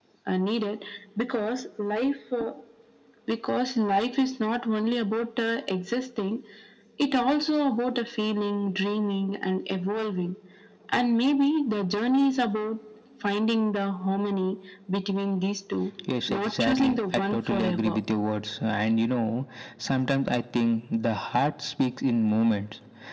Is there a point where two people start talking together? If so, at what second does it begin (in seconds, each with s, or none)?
16.4 s